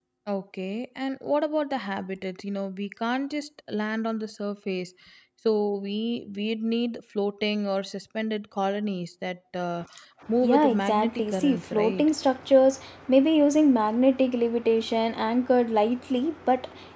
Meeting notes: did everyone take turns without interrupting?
No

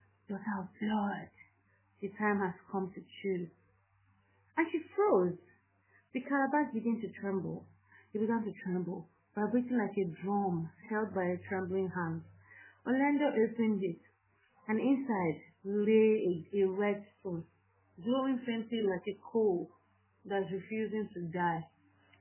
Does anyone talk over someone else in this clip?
No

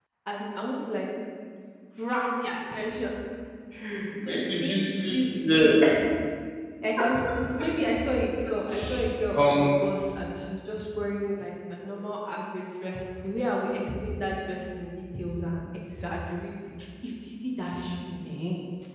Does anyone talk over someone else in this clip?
Yes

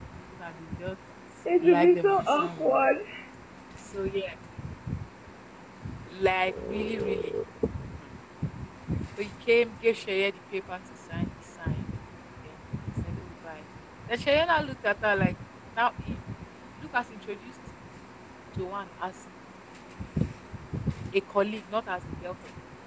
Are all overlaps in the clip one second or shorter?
No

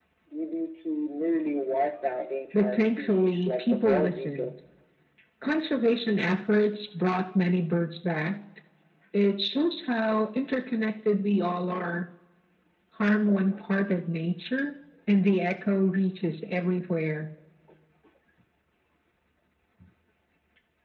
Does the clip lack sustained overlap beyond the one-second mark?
No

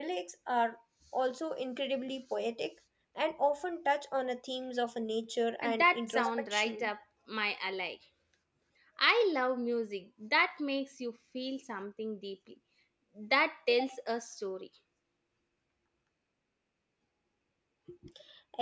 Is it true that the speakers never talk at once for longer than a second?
No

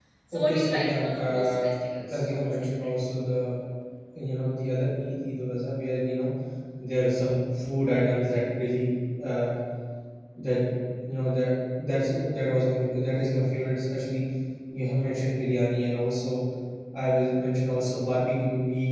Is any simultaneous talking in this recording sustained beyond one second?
Yes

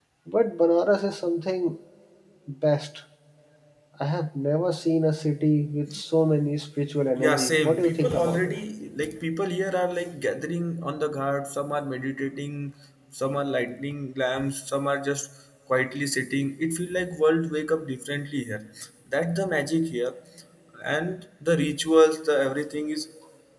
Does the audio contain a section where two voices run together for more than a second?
Yes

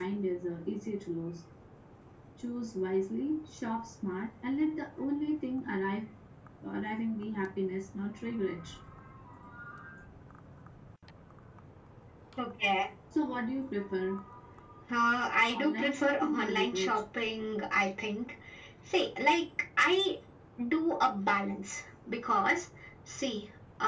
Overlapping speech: Yes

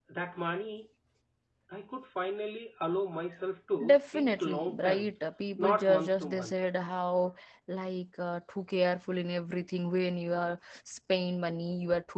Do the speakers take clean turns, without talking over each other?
No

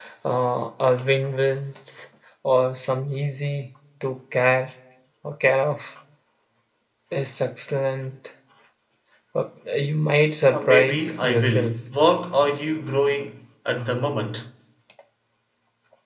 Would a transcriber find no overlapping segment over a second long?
No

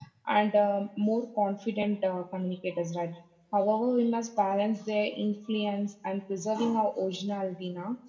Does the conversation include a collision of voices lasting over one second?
No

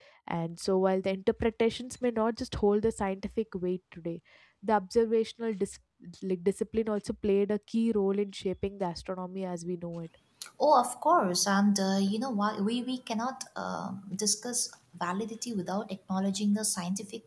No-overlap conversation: Yes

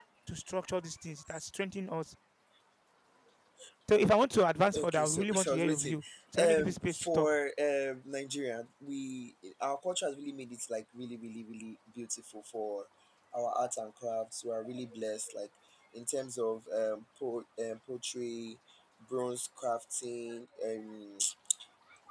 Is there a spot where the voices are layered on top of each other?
Yes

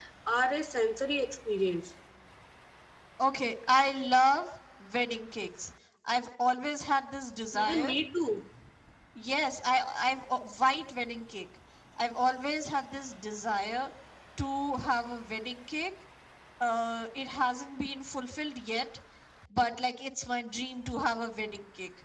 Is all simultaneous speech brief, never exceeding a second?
Yes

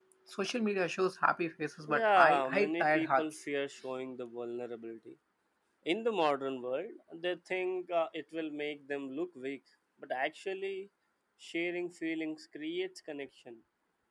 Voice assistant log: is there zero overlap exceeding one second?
No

